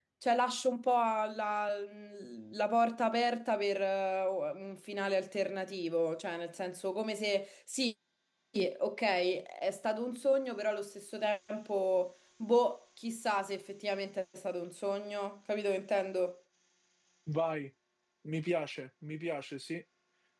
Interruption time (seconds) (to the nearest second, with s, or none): none